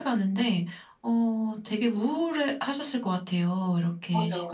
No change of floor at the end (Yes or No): No